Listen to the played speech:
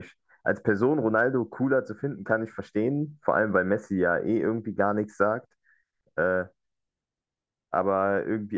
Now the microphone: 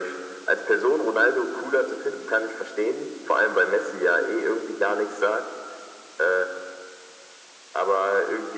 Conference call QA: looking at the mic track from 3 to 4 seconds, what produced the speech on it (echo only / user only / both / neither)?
echo only